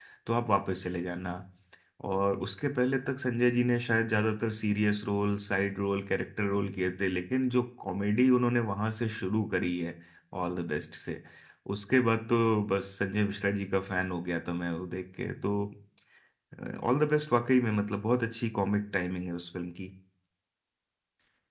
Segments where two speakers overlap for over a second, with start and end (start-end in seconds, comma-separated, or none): none